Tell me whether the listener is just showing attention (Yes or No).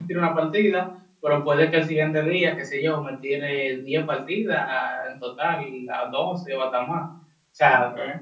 Yes